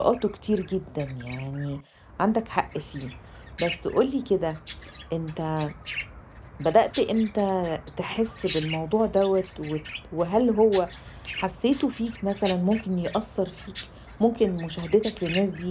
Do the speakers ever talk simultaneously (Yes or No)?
No